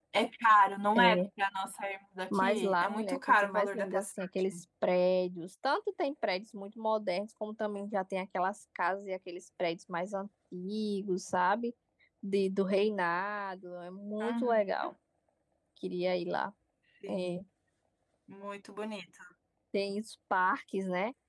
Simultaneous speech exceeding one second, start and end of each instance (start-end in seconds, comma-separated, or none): 2.4-4.1